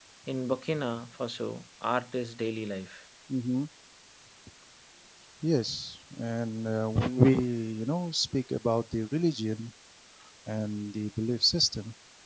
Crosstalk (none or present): none